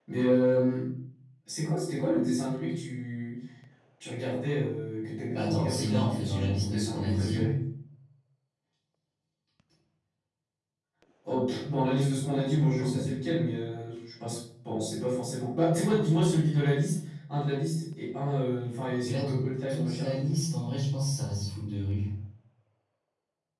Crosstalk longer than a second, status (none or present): present